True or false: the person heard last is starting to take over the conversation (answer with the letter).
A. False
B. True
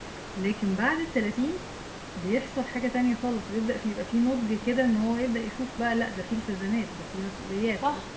B